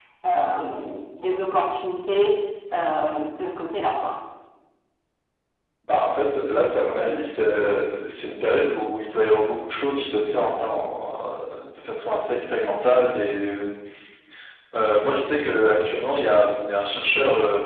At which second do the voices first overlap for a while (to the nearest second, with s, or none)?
none